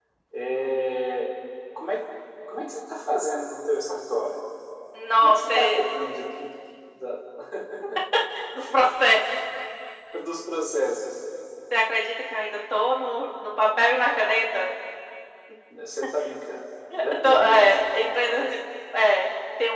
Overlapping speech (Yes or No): Yes